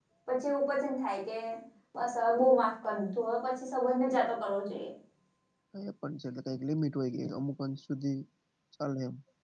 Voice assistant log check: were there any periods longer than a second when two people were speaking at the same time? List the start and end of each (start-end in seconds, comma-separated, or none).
none